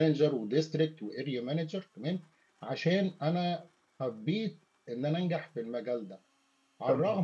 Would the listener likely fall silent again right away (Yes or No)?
Yes